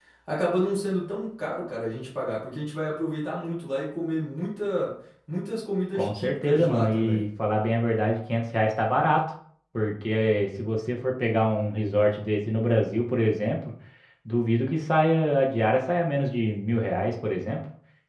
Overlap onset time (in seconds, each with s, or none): 6.0 s